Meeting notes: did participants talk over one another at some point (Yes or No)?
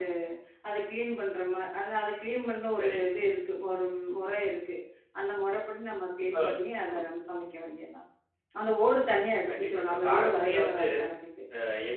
Yes